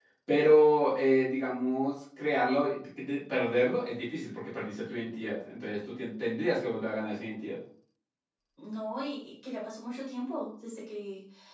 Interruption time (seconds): none

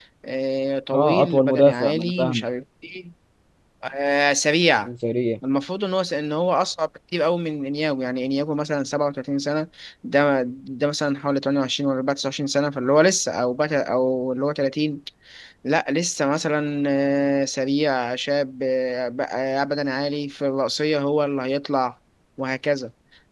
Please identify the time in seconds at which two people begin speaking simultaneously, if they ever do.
0.9 s

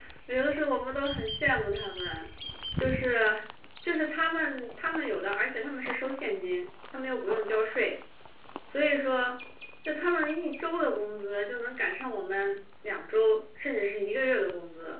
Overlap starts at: none

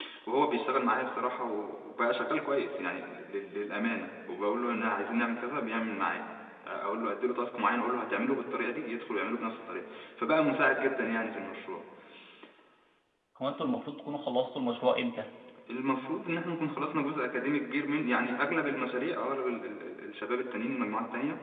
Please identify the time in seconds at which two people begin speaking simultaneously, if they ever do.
none

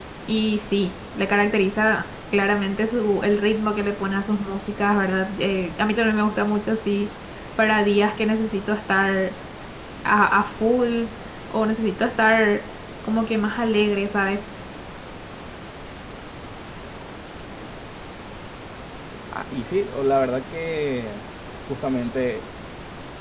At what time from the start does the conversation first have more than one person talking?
none

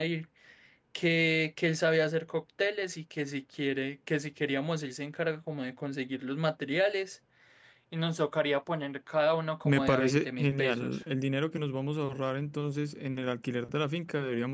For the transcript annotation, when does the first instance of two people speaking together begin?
9.7 s

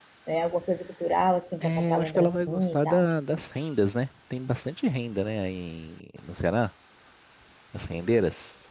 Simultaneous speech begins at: 1.6 s

